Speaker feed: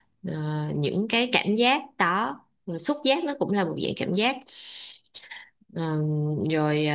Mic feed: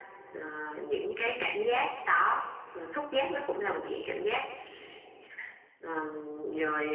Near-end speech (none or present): none